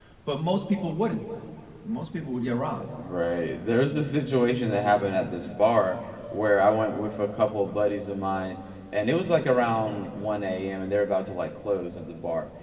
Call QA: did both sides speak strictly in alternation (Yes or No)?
Yes